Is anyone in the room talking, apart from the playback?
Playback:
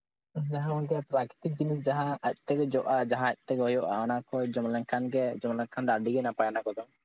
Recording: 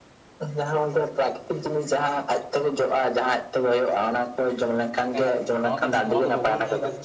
Yes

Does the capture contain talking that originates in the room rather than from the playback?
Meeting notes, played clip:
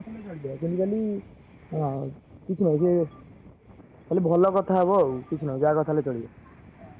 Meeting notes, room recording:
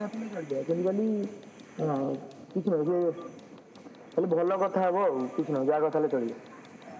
No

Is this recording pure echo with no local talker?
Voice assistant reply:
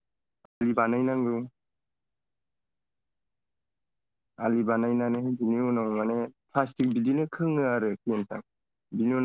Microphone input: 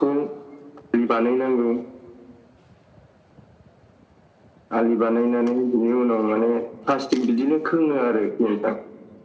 Yes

